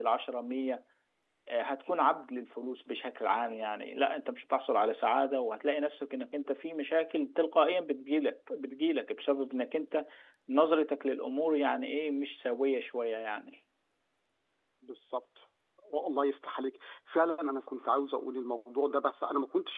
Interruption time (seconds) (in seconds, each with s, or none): none